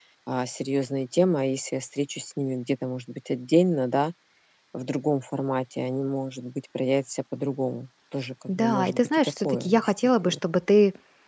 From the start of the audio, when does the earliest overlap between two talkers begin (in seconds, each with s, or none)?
8.5 s